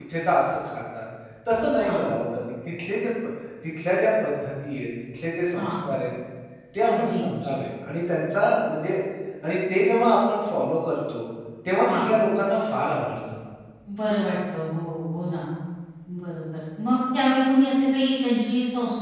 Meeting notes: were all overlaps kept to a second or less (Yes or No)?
Yes